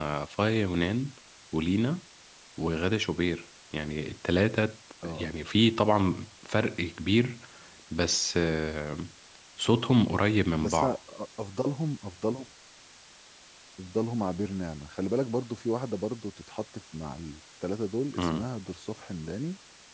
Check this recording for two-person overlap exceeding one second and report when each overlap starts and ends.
none

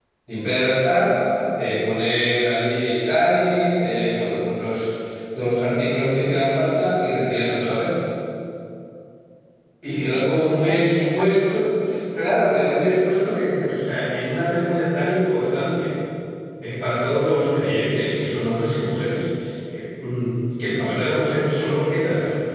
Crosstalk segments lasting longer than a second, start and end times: 10.1-11.7

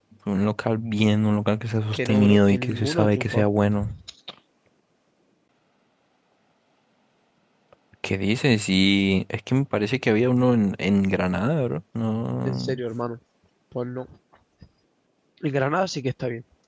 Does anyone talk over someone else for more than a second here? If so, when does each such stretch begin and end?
1.9-3.4

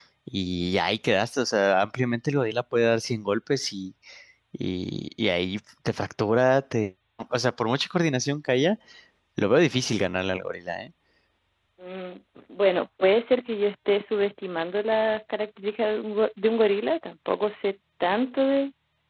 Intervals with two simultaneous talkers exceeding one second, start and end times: none

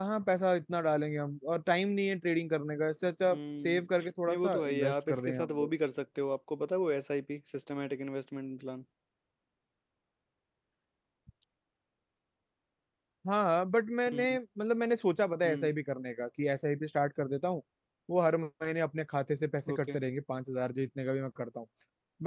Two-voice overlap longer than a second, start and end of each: 4.3-5.7

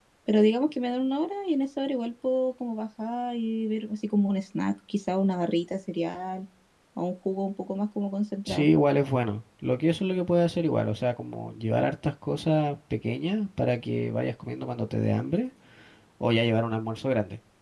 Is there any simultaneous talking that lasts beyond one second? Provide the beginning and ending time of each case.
none

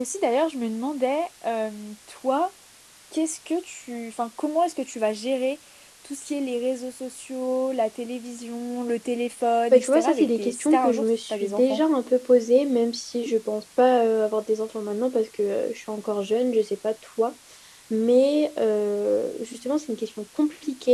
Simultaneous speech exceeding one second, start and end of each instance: 9.7-11.8

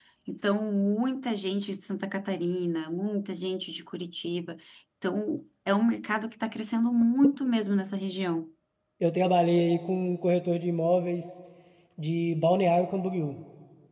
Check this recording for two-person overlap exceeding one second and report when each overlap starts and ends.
none

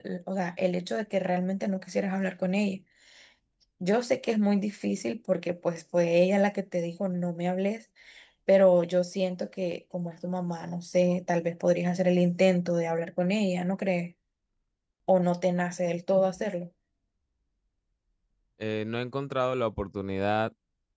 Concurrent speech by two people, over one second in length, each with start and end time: none

